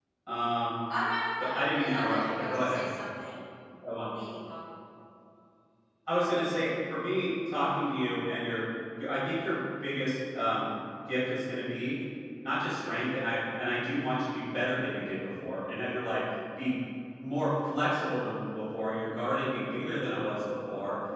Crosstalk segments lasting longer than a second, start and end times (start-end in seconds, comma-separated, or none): 1.5-2.9